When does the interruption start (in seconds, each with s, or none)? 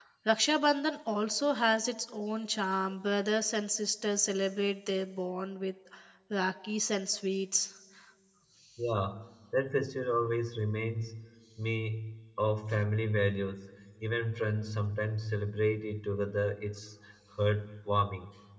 none